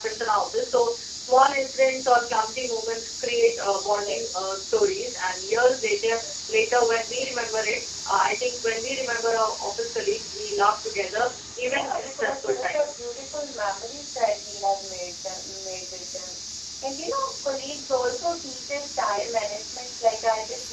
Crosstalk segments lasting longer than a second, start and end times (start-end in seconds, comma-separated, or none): 11.7-13.0